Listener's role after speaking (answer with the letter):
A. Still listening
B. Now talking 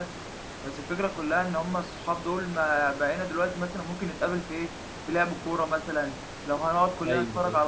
A